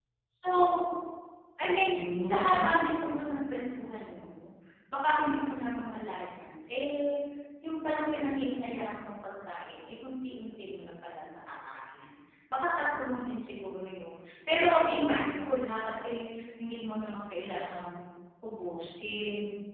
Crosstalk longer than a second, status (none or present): present